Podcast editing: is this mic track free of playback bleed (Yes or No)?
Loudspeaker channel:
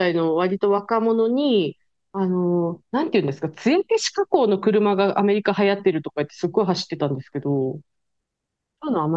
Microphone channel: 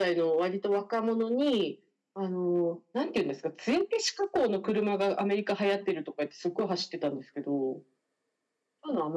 No